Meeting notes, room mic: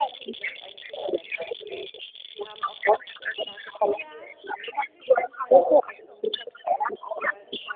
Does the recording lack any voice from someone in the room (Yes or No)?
Yes